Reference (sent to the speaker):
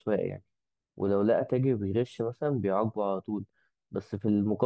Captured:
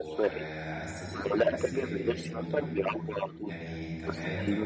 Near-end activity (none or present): present